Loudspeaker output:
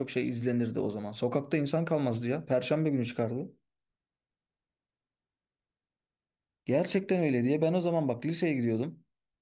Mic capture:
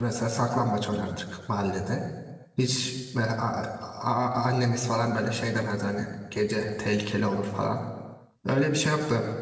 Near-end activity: present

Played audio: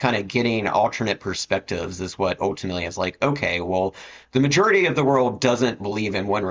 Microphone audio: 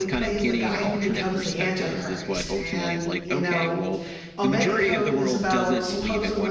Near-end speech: present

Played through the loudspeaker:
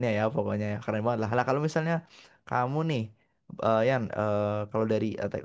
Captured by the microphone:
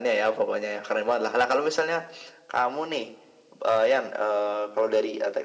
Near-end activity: none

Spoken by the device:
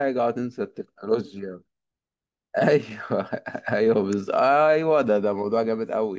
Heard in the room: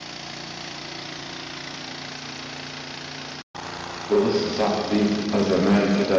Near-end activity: present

